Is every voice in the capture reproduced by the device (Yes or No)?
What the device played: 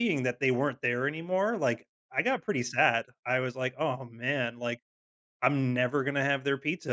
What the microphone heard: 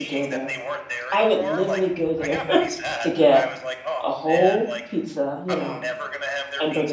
No